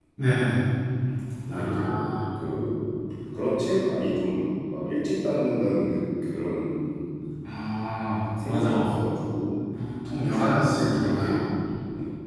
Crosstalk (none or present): present